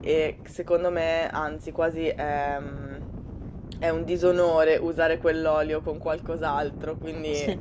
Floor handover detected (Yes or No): No